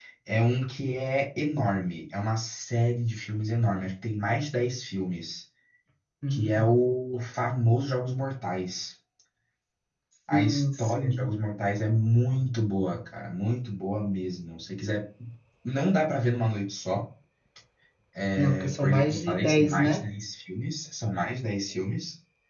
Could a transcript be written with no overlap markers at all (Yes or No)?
No